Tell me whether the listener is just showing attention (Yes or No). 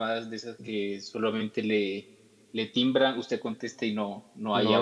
No